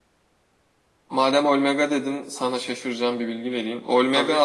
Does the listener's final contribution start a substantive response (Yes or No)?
No